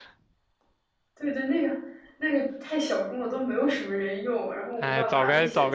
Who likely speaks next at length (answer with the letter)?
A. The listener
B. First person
A